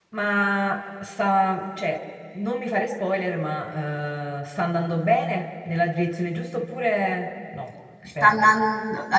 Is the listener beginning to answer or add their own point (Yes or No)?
Yes